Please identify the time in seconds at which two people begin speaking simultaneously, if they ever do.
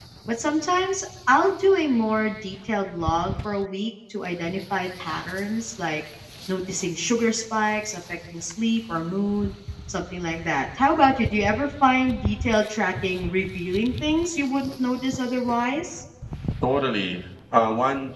none

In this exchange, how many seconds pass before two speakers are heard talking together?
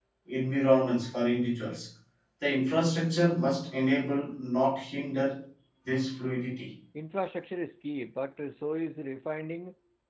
none

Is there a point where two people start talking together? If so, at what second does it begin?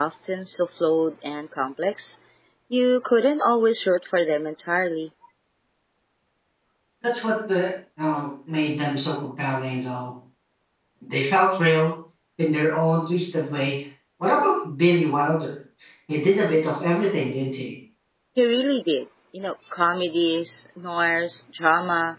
none

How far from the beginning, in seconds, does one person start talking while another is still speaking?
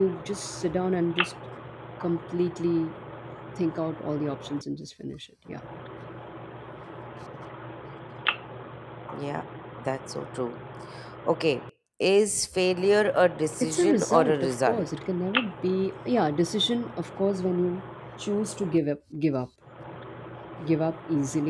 13.6 s

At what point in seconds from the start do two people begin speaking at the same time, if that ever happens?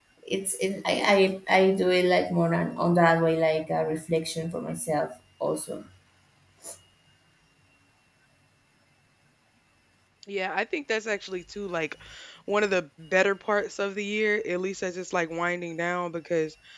none

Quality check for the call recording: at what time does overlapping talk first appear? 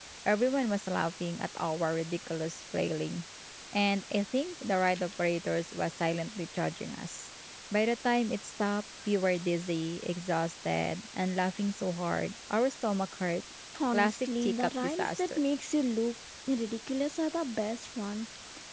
13.9 s

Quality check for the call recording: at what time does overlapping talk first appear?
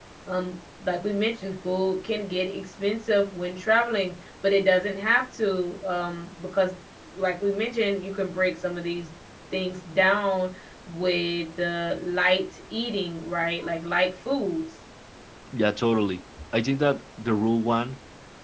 none

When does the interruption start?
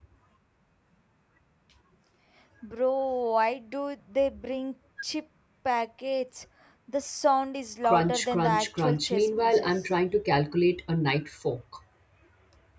7.8 s

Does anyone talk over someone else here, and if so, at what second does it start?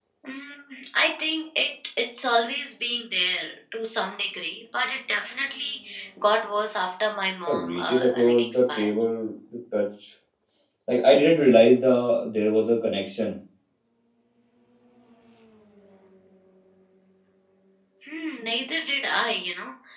7.5 s

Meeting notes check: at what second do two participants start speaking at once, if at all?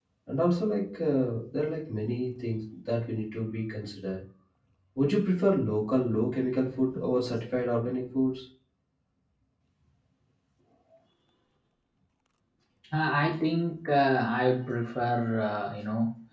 none

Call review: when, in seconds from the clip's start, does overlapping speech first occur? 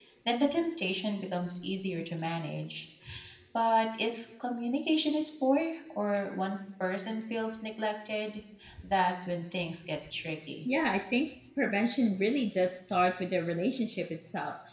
none

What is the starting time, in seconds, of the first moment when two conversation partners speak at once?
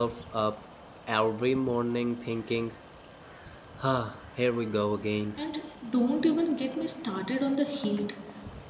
none

